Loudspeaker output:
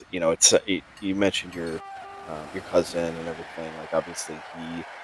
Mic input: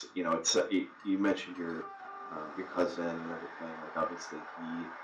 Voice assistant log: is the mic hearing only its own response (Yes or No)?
Yes